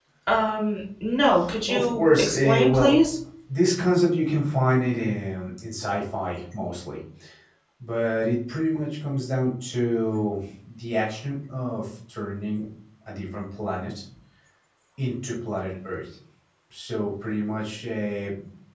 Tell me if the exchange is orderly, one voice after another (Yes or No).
No